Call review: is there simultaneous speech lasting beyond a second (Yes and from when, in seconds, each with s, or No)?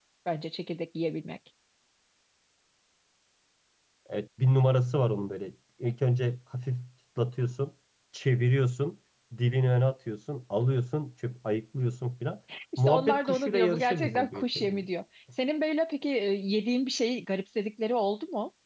Yes, from 12.8 s